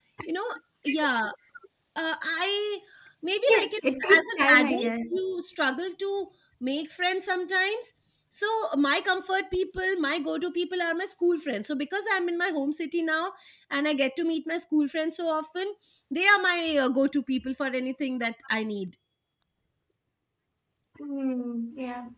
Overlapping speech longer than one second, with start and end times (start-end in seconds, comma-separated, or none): 3.5-5.1